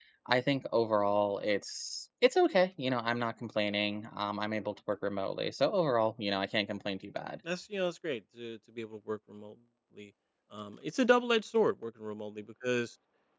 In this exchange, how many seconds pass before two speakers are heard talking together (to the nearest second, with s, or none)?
none